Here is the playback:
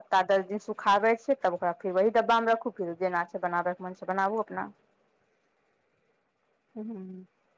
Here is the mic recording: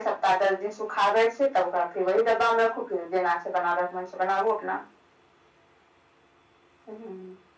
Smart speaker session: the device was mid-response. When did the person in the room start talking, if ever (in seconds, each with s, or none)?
none